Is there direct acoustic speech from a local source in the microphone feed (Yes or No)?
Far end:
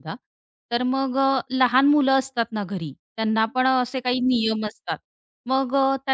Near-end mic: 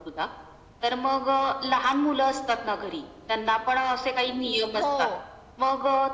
Yes